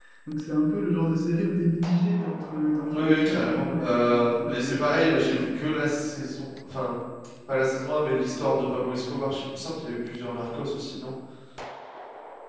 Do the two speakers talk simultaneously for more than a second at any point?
Yes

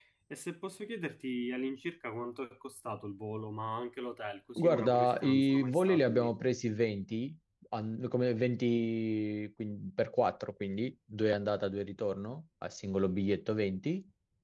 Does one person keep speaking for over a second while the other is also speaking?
Yes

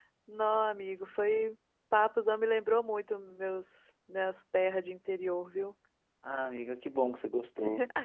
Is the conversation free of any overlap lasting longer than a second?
Yes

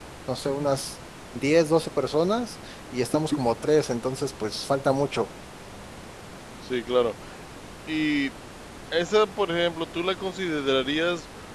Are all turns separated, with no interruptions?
Yes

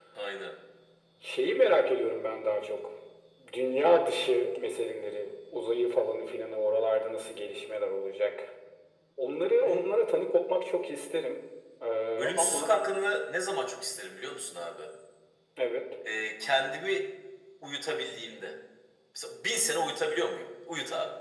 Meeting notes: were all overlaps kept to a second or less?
Yes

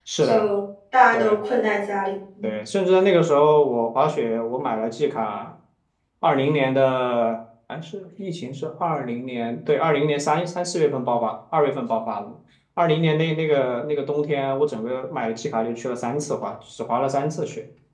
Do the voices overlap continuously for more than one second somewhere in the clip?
No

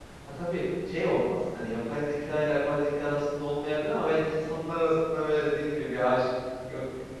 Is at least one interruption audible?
No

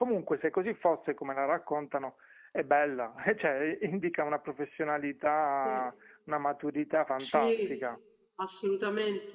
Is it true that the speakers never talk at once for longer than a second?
Yes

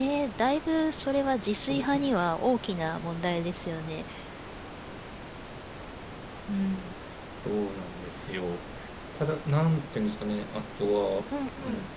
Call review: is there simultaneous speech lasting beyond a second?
No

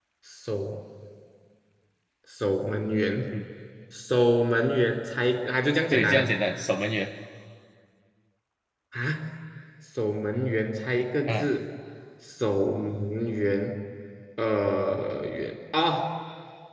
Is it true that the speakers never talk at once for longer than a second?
Yes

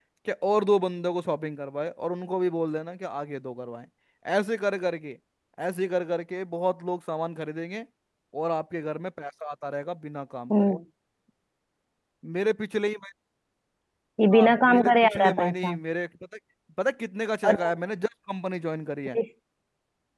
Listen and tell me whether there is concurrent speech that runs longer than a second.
Yes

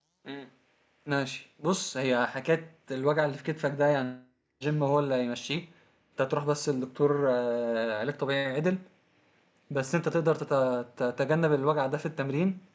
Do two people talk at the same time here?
No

